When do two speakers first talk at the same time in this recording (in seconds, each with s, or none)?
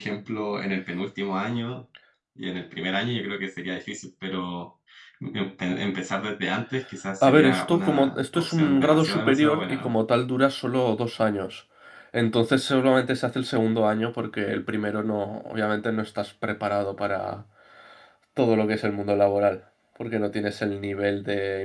7.2 s